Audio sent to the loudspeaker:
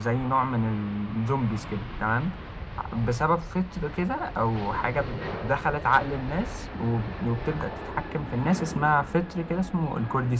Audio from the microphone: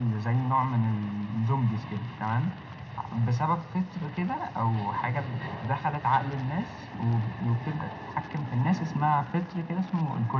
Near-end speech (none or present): none